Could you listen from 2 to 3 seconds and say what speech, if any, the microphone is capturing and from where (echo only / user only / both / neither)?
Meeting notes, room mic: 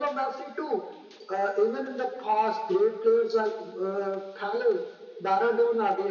echo only